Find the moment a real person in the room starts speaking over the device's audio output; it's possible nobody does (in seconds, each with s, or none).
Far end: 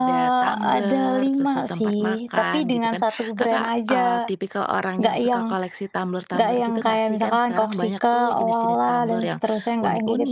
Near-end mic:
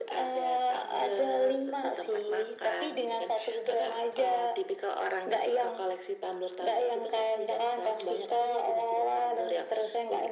none